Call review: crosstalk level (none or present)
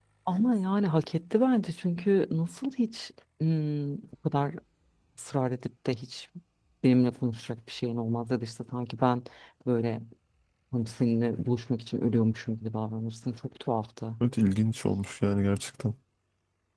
none